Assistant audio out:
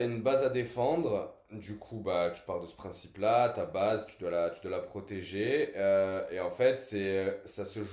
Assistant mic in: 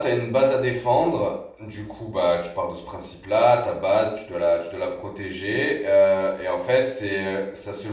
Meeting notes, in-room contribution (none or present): none